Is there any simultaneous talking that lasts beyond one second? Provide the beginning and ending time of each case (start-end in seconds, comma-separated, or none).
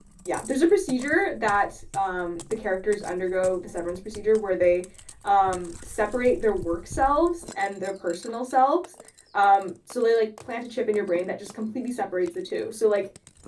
none